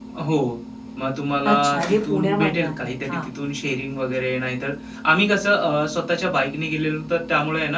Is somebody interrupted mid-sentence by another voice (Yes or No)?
Yes